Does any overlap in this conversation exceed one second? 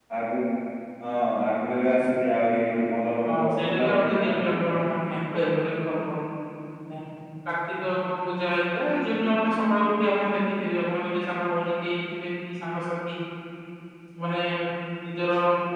Yes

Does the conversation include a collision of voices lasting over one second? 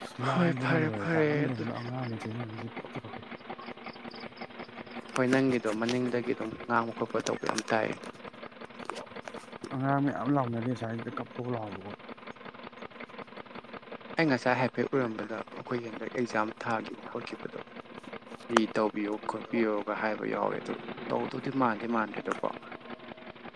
Yes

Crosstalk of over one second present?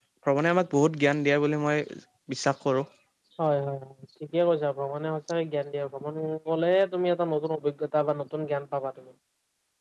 No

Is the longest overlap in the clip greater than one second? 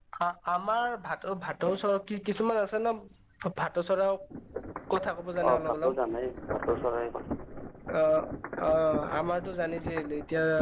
No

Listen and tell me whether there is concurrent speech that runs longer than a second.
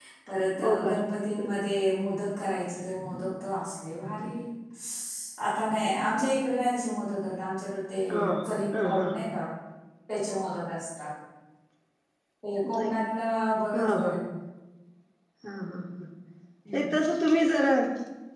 No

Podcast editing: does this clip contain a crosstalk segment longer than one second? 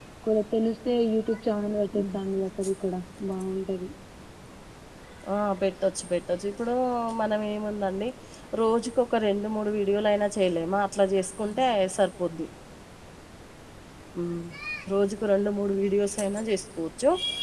No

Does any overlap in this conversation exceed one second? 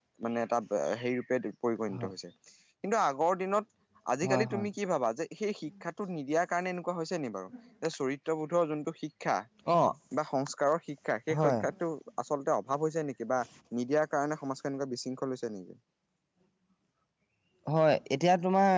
No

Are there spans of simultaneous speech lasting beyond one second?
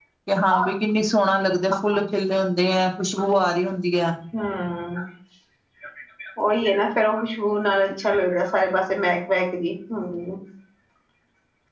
No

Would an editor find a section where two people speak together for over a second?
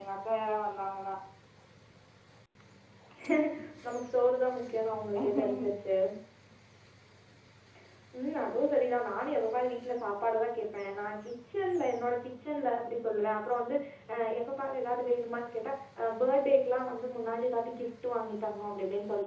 No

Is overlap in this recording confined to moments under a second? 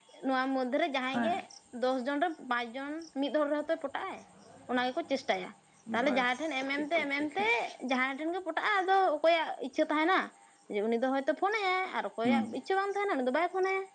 No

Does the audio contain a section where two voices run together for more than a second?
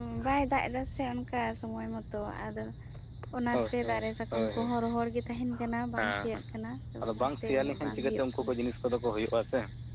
Yes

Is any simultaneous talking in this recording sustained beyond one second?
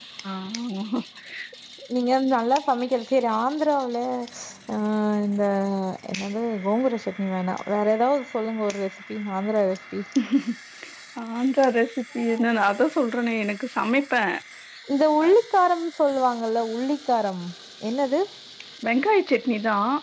No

